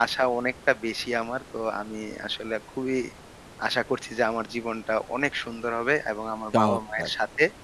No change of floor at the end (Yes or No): Yes